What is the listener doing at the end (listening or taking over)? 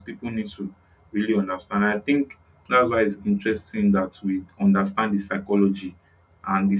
listening